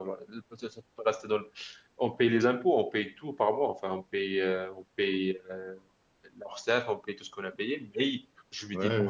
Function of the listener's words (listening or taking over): listening